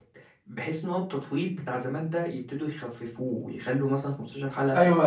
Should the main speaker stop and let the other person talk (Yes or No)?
Yes